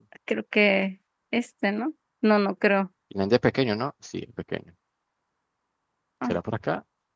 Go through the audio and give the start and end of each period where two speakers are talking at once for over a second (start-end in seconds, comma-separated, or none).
none